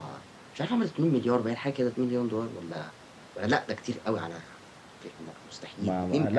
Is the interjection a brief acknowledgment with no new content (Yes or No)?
No